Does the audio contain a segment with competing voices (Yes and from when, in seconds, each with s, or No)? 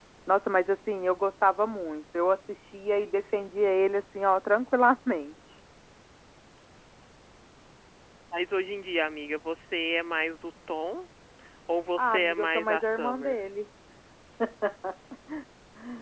Yes, from 12.0 s